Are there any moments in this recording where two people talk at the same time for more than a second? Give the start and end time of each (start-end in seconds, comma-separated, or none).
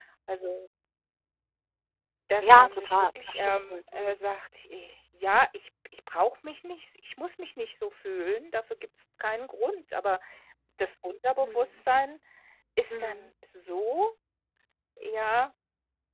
2.4-4.3